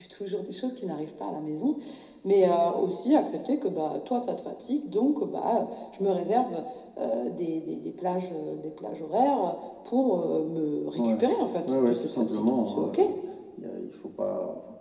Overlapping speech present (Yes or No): Yes